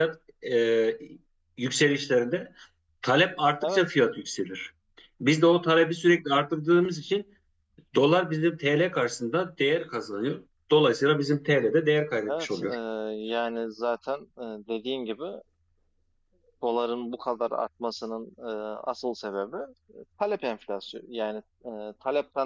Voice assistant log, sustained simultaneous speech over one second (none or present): none